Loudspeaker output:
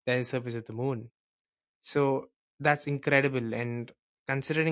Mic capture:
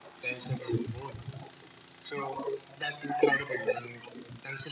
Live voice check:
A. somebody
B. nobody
B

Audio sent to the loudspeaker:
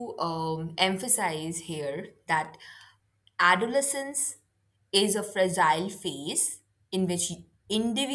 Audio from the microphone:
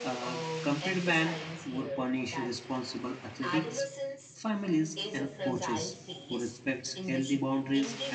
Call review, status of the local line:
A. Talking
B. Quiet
A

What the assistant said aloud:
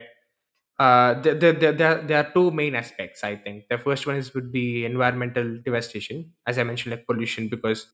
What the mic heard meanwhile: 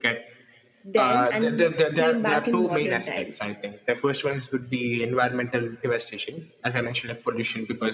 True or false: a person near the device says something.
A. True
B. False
A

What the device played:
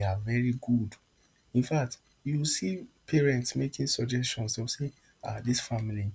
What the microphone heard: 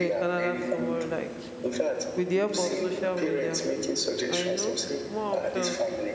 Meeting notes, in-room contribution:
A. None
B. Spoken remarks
B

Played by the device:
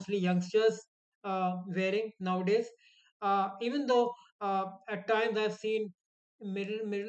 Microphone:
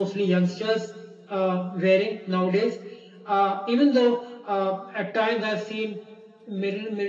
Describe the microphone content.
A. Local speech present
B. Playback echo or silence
B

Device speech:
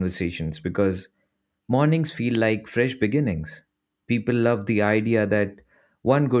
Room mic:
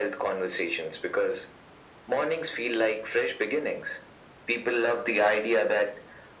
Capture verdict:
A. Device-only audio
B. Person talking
A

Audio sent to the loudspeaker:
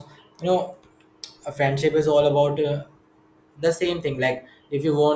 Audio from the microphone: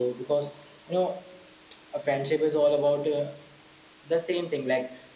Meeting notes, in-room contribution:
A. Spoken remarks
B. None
B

